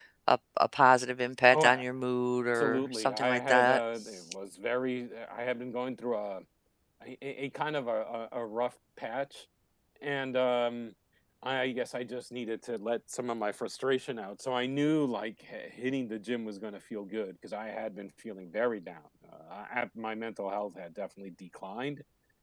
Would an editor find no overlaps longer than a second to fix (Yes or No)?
No